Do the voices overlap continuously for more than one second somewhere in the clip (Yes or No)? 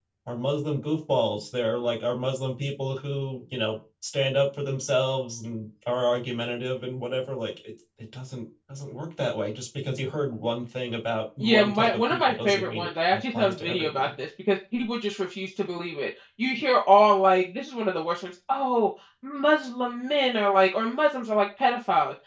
Yes